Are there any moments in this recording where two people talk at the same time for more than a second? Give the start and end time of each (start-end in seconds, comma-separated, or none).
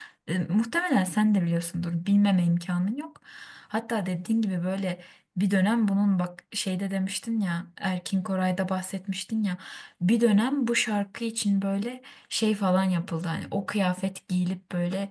none